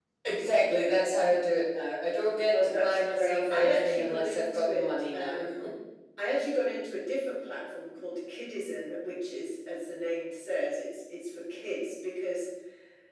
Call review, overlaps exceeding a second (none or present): present